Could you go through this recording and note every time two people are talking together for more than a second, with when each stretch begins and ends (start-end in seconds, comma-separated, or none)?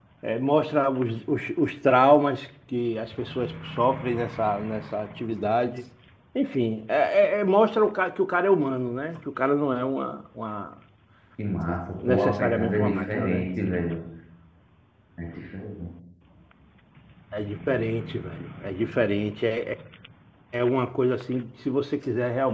12.1-13.5